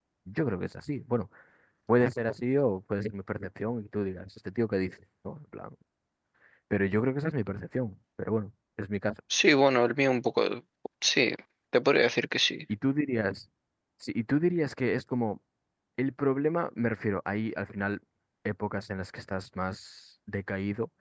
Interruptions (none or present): none